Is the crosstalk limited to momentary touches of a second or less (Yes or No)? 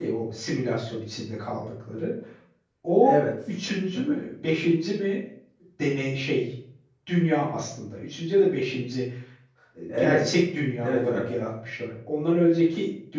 Yes